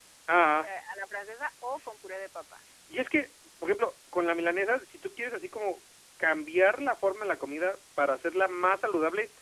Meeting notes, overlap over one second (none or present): none